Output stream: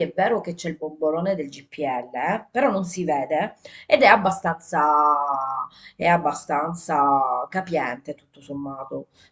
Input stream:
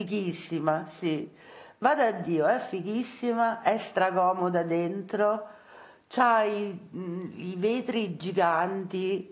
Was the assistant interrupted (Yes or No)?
Yes